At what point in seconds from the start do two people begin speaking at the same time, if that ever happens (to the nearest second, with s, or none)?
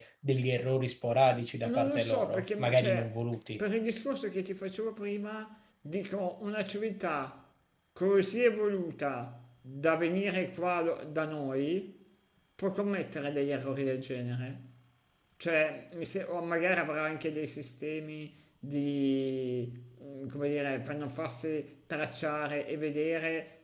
2 s